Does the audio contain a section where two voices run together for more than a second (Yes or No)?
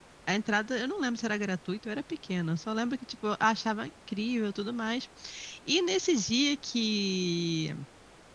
No